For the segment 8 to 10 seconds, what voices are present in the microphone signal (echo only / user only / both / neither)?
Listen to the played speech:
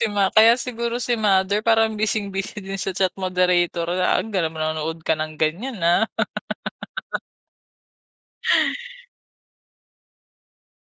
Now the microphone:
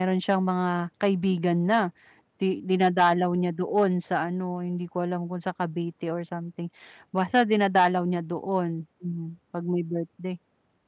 user only